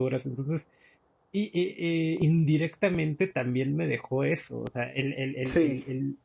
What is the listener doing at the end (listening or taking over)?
listening